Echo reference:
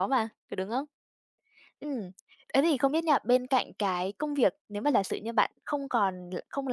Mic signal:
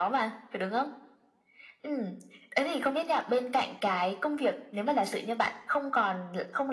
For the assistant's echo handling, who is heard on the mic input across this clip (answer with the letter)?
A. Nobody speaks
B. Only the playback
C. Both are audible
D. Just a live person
B